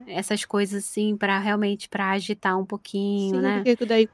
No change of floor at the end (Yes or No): No